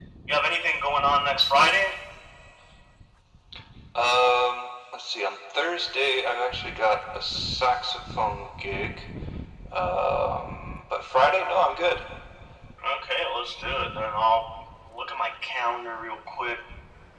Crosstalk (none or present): none